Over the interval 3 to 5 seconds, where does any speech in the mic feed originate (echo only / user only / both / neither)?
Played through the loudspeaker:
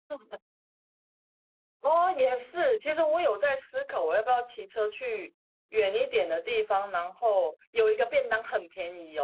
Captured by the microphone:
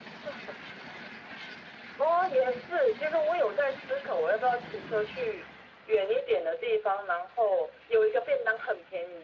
echo only